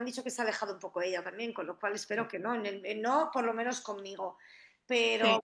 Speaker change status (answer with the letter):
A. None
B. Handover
A